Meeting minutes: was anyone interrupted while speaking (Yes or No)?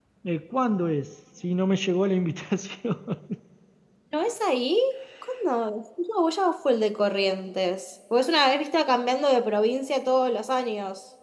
No